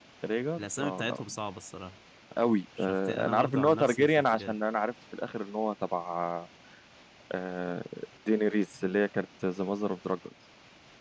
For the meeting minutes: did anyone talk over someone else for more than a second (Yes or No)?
Yes